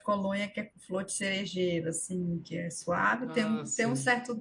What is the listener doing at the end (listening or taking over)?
listening